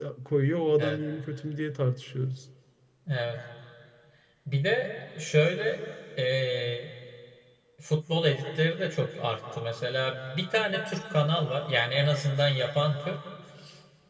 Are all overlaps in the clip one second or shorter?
Yes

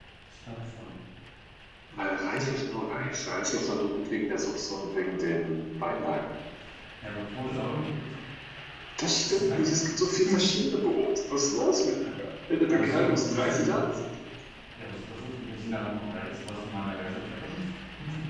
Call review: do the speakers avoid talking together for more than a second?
No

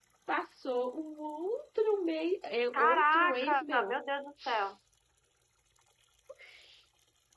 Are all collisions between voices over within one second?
No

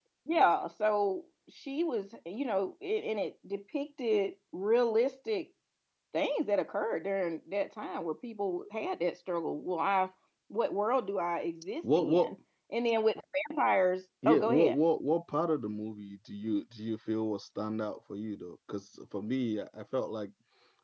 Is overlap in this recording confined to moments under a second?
Yes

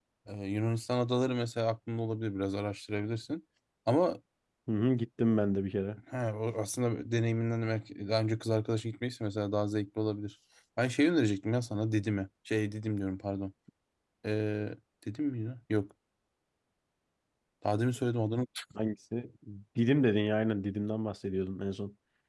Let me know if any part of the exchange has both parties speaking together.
No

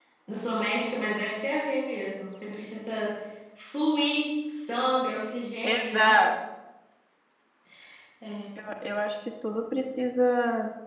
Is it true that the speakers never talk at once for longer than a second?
Yes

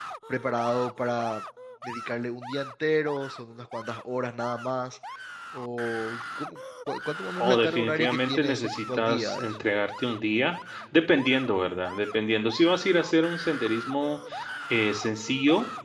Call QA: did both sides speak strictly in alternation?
No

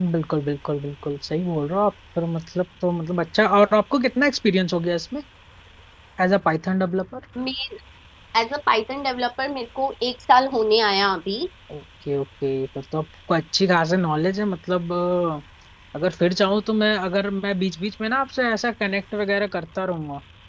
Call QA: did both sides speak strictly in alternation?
Yes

